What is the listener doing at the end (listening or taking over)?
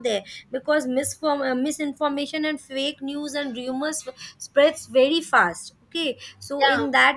listening